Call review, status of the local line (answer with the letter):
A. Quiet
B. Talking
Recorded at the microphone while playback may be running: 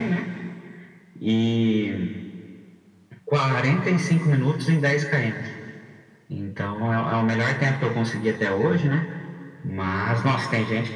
A